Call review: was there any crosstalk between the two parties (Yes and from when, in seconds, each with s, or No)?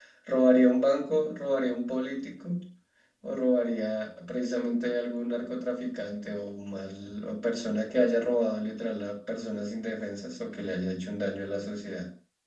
No